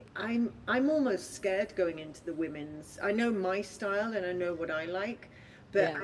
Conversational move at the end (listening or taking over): listening